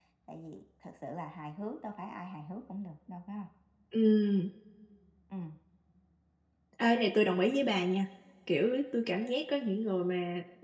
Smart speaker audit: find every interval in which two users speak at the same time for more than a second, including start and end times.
none

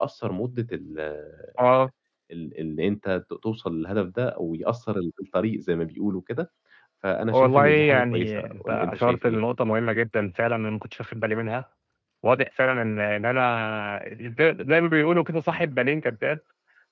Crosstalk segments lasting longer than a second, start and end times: 7.3-9.4

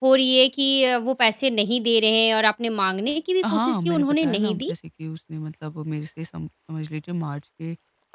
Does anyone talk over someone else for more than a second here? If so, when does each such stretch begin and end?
3.5-4.7

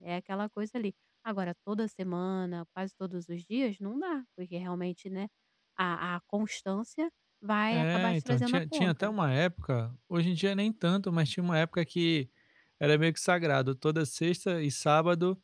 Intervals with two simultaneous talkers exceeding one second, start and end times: 7.7-9.1

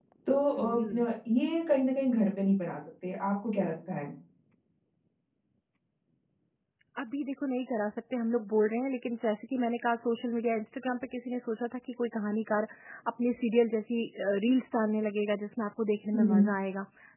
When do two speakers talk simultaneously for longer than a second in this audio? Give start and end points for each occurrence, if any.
none

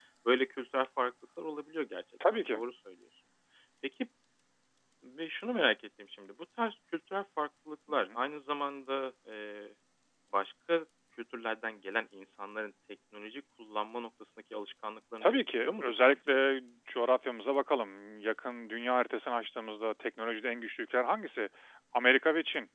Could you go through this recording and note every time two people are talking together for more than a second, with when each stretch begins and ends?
15.2-16.4

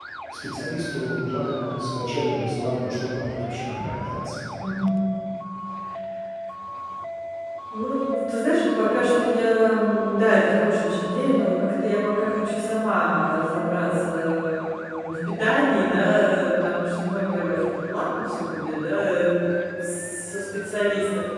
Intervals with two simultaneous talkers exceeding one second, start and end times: none

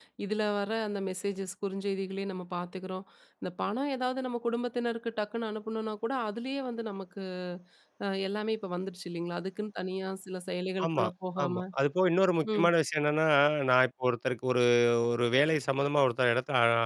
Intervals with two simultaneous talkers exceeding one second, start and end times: none

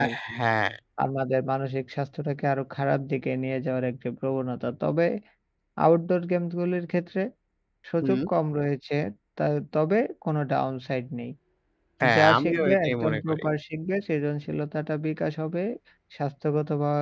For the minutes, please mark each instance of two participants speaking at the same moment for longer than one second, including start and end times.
12.2-13.4

